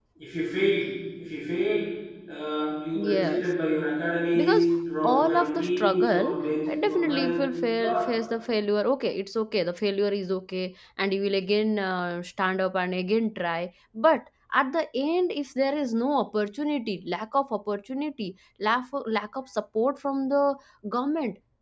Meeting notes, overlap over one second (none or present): present